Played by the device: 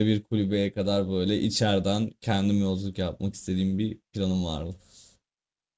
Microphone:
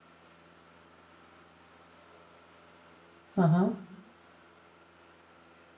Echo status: none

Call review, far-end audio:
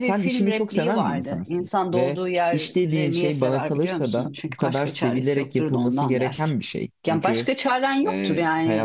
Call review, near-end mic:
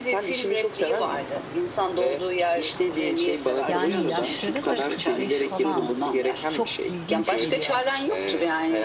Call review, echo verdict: present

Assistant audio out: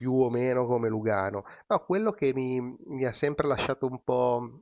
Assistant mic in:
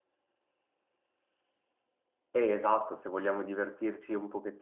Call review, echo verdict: none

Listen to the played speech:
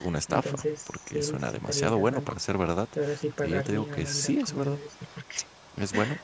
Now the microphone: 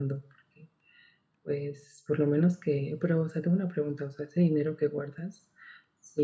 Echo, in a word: none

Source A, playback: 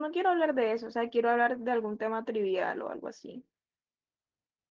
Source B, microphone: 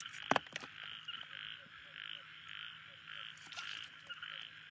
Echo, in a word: none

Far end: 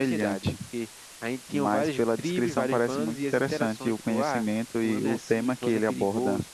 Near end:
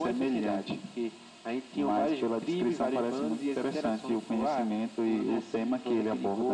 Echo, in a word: present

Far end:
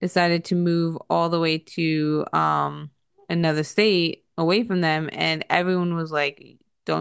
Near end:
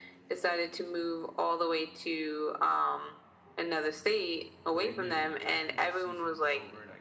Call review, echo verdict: present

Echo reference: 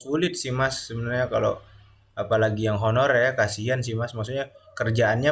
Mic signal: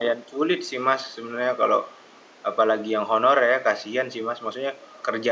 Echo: present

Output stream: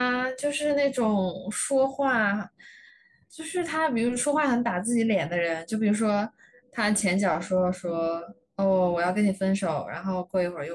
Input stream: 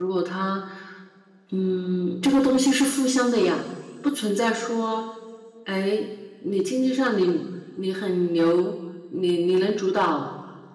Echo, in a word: none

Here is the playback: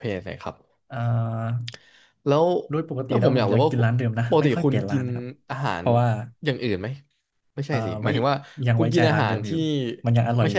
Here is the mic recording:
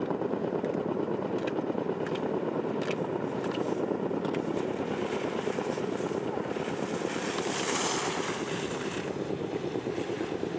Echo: none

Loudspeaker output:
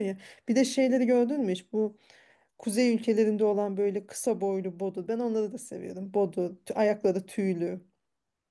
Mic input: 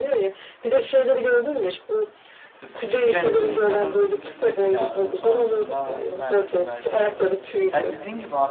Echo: present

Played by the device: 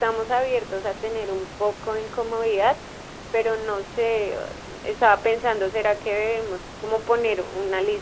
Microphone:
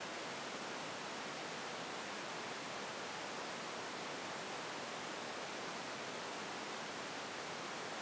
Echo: none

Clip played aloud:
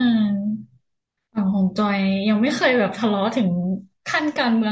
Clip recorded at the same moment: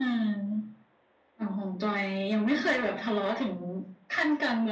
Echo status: present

